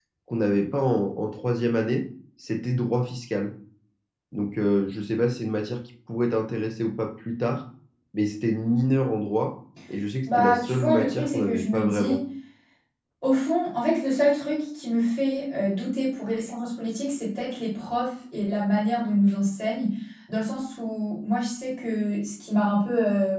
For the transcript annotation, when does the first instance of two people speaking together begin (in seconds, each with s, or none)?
10.3 s